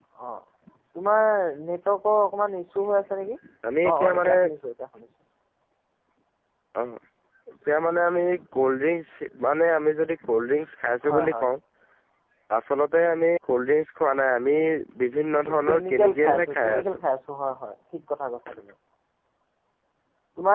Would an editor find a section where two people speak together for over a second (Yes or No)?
Yes